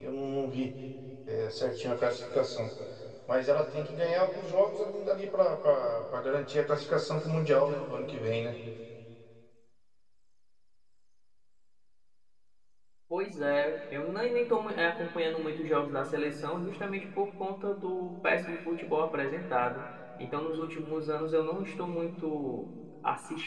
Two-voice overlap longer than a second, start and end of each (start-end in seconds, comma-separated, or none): none